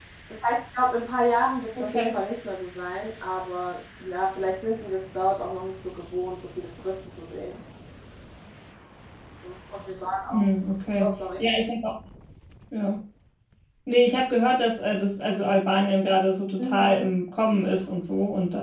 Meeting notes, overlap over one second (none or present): none